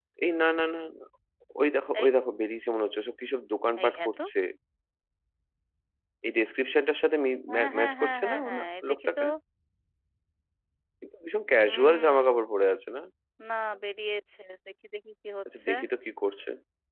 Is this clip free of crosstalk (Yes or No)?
No